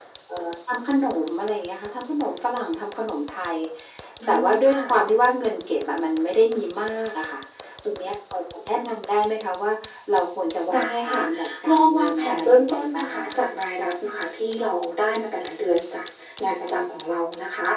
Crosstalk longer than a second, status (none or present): present